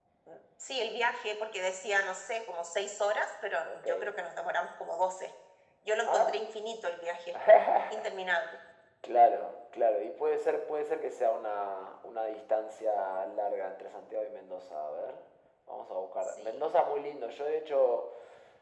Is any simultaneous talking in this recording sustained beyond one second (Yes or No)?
No